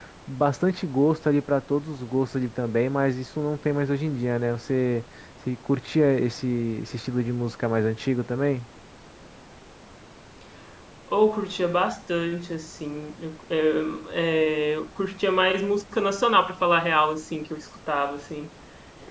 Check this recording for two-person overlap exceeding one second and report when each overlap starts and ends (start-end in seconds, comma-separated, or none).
none